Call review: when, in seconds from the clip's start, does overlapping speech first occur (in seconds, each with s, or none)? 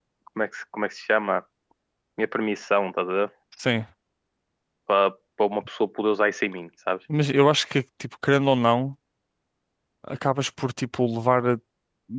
none